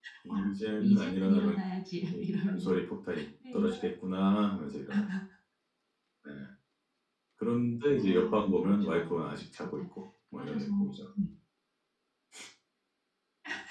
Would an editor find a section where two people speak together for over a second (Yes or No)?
Yes